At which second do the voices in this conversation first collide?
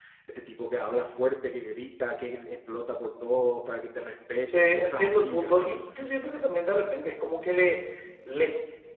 4 s

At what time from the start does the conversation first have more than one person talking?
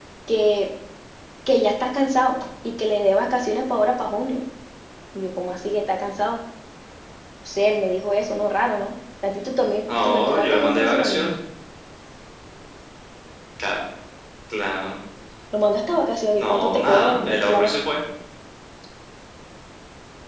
10 s

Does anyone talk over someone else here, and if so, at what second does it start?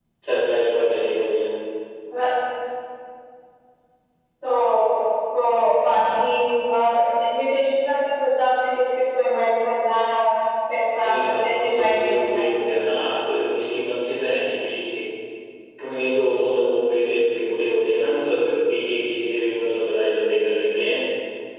11 s

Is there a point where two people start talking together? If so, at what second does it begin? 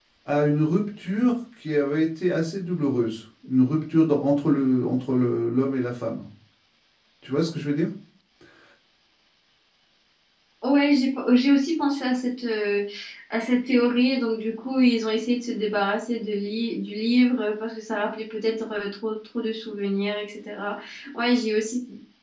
none

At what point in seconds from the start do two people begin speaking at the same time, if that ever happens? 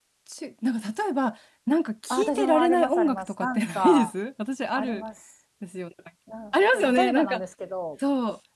2 s

